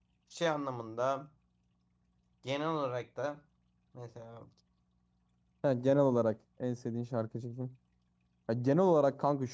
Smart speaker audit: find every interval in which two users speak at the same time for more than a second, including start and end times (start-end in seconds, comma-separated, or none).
none